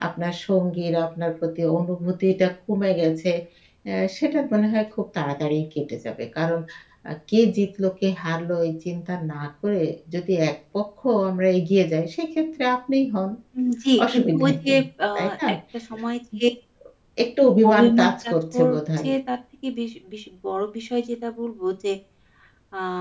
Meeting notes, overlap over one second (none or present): present